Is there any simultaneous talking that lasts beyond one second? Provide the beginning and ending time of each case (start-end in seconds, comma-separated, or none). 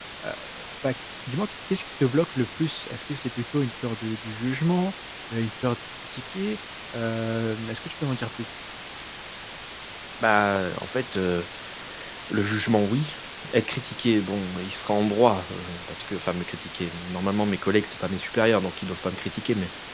none